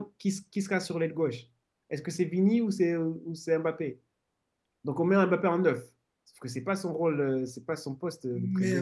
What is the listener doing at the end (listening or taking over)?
taking over